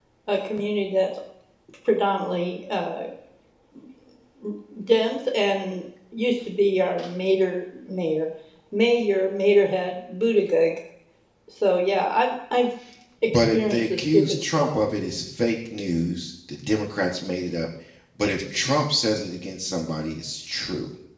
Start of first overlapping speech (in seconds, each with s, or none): 13.3 s